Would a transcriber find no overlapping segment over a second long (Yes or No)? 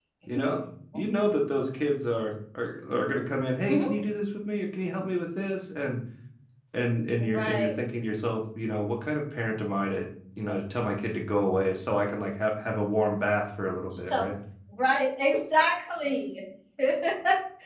Yes